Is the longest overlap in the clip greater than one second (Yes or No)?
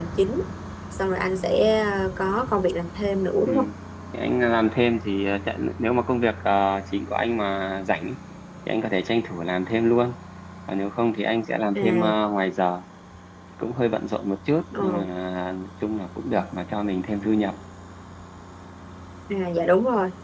No